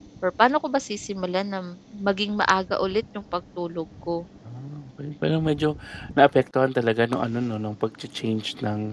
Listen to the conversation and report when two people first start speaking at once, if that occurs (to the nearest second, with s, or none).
none